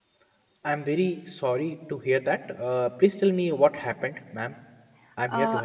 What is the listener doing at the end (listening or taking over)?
taking over